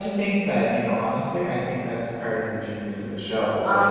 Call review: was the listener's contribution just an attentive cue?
Yes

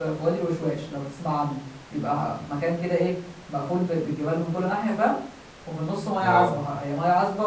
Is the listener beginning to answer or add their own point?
No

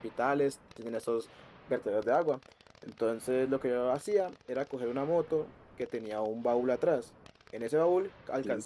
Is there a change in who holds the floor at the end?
No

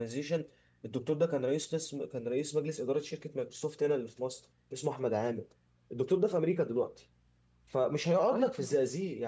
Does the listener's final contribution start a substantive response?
No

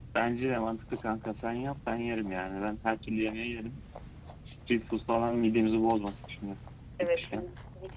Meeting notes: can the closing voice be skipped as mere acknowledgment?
No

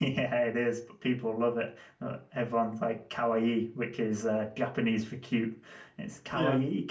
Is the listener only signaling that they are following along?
Yes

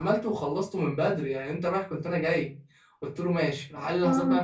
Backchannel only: Yes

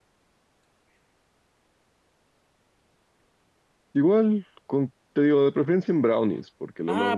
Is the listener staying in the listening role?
No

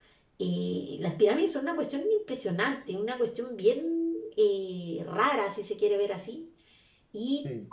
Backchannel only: Yes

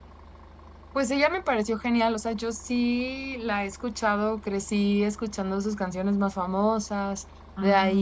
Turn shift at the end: No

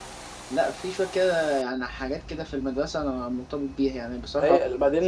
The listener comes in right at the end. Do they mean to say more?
Yes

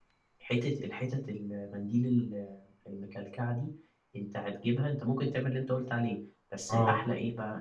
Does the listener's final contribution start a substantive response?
No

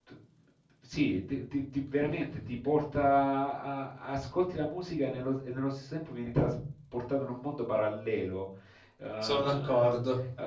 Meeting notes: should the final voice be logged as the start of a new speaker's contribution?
No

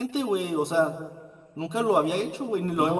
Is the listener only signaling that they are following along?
No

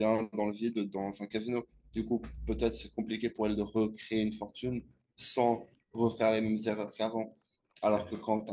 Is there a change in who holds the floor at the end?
No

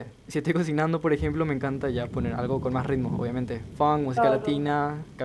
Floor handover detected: Yes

